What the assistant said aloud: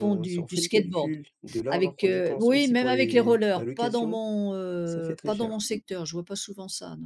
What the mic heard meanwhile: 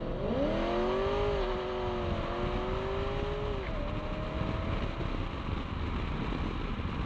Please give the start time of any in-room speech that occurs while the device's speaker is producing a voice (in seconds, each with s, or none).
none